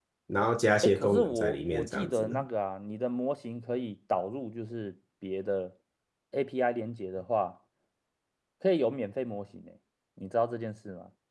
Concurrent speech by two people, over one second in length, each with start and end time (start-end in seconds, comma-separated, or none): 0.8-2.4